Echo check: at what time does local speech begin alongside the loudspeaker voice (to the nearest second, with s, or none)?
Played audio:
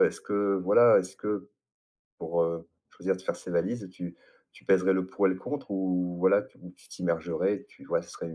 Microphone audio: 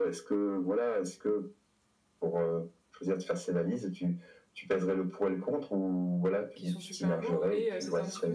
7 s